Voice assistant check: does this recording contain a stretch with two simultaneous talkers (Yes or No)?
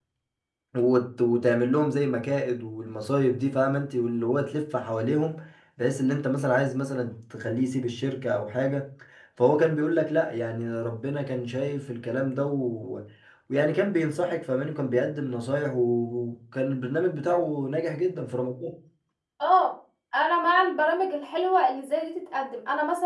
No